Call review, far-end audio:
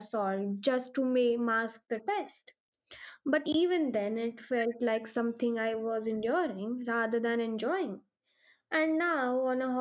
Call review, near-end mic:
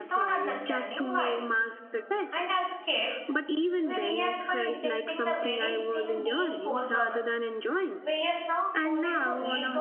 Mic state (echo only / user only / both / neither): both